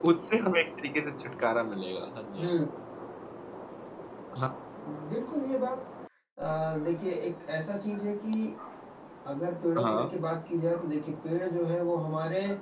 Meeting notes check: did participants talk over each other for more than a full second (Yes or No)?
No